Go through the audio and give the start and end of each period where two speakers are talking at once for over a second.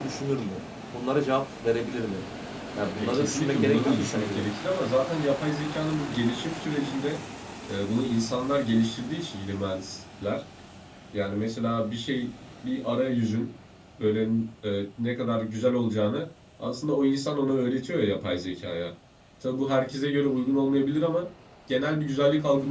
3.0-4.4

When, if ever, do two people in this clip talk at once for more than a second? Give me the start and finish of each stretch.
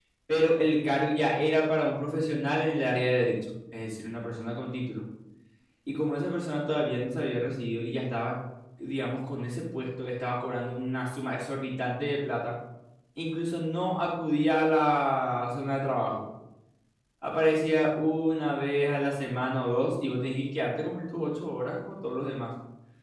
none

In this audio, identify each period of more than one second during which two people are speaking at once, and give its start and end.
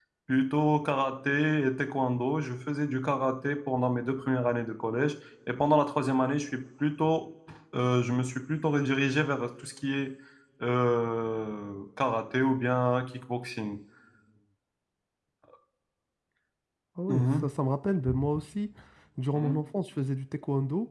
none

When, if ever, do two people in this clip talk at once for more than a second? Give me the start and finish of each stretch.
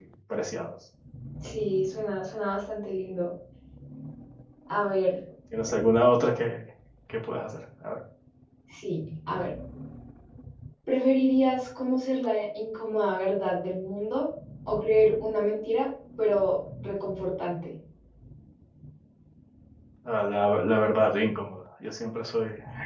none

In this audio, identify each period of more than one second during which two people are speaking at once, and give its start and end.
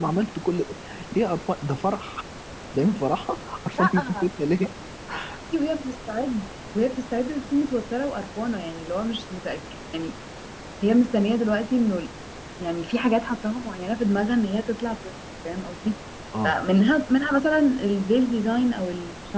none

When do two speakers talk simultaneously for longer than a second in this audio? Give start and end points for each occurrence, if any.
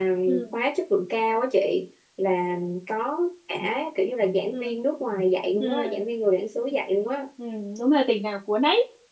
none

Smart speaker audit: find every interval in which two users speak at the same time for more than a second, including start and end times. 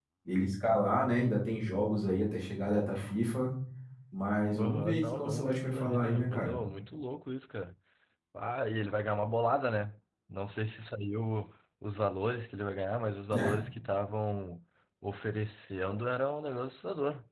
4.5-6.5

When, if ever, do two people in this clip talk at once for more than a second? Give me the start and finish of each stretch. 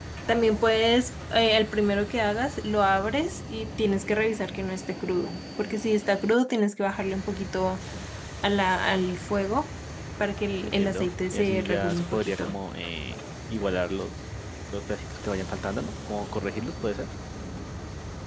10.6-12.6

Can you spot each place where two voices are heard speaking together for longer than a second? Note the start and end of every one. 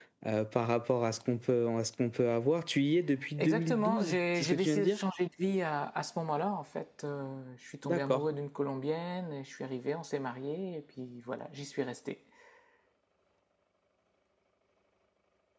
3.4-5.0

